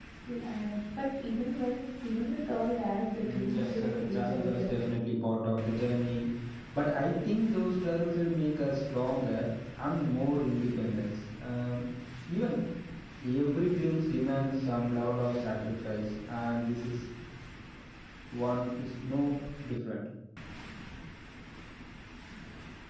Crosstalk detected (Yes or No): Yes